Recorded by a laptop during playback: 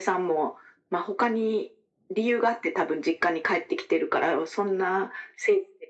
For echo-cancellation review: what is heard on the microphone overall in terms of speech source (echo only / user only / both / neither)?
echo only